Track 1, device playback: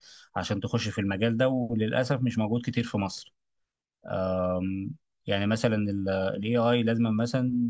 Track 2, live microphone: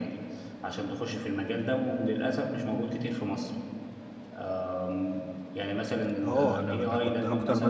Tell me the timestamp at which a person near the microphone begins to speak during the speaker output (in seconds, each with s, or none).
6.2 s